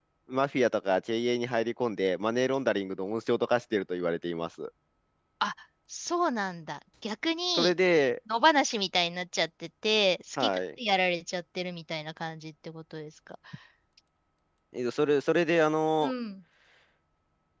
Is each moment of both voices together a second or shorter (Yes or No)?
Yes